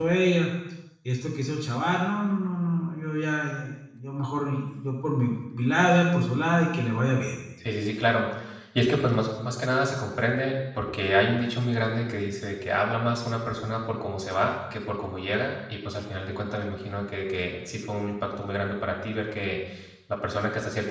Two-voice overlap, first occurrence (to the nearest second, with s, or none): none